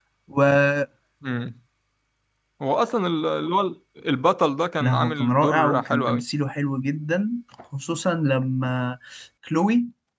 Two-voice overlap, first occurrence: 4.8 s

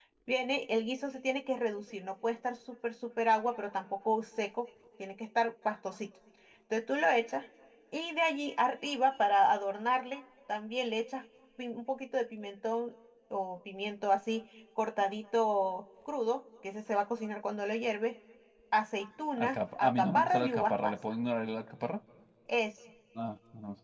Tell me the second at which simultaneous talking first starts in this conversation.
19.4 s

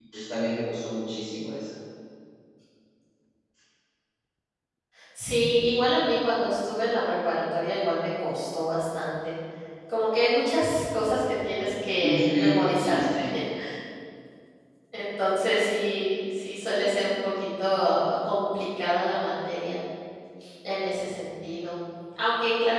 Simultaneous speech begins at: 12.0 s

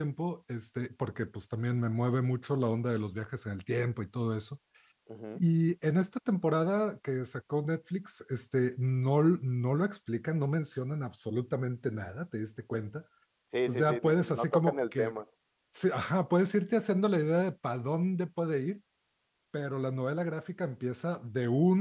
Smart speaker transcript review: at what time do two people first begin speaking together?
13.7 s

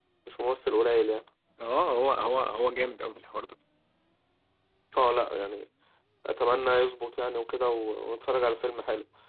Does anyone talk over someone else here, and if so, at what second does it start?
none

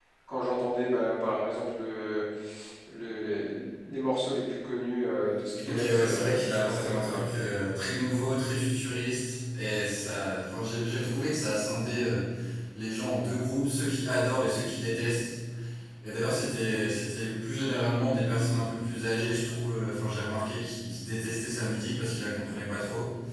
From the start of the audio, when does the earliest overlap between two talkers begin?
5.6 s

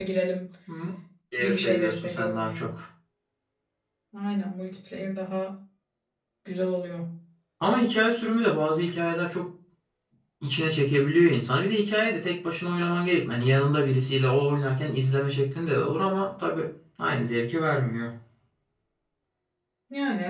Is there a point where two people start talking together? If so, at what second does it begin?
1.4 s

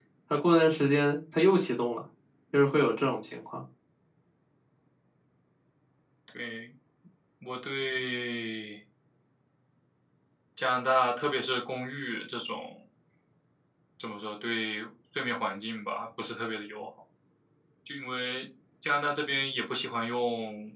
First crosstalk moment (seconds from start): none

